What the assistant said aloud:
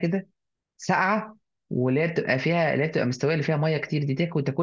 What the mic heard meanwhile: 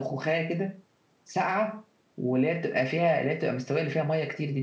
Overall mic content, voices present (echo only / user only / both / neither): echo only